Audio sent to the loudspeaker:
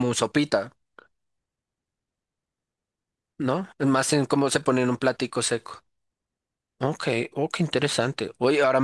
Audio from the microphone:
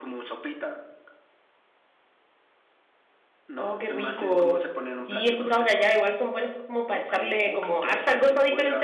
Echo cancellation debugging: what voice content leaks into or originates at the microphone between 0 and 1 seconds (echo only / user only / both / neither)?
echo only